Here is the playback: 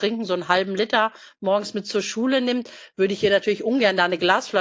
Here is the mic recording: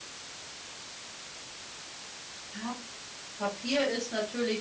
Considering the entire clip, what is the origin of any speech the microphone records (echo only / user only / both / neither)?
user only